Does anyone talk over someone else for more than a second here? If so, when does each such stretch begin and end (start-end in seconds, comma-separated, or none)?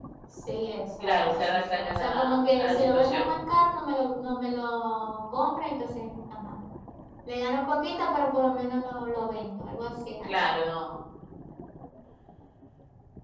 1.0-3.3